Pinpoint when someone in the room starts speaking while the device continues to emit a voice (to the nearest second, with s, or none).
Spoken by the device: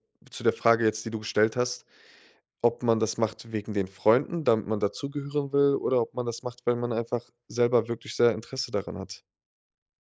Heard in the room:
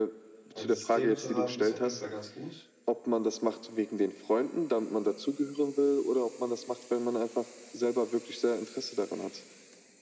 1 s